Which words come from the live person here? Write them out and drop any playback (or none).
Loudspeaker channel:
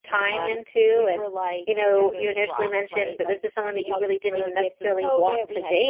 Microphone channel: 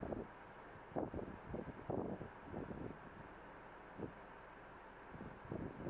none